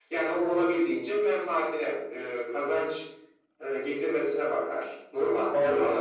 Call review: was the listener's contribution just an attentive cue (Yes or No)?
No